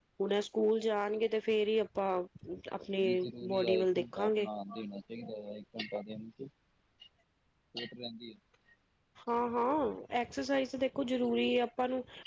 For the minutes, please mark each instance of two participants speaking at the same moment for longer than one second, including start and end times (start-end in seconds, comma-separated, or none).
3.0-4.5